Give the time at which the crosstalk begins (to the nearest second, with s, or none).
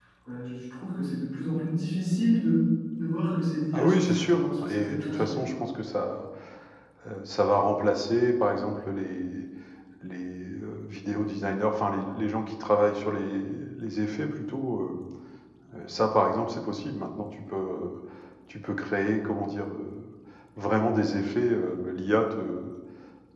4 s